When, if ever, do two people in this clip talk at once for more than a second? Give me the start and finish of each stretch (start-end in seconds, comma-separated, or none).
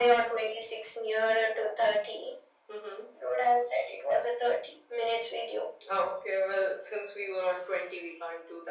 none